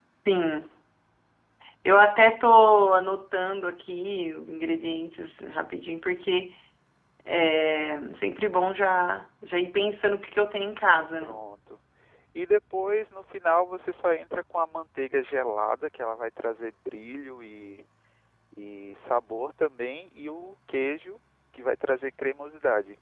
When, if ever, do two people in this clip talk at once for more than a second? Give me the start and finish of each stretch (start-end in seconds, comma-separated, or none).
none